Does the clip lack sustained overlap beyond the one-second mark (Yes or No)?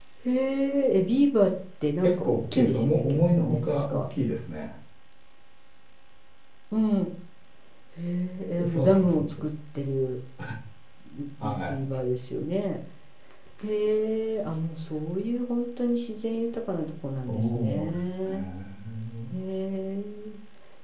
No